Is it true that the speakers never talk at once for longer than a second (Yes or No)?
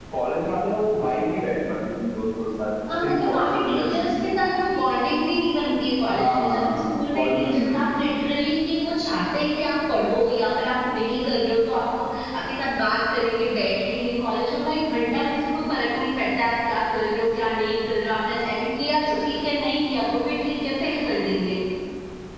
No